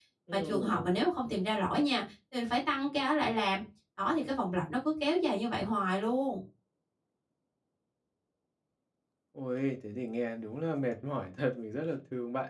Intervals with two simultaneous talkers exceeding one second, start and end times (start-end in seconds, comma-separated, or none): none